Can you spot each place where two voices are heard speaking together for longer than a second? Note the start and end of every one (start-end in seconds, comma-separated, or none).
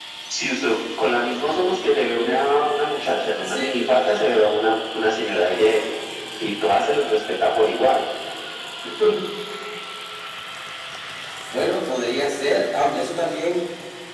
1.2-2.4